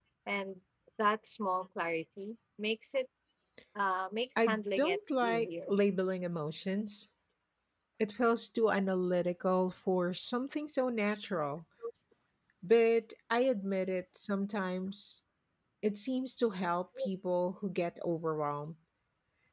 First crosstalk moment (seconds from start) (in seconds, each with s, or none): 4.4 s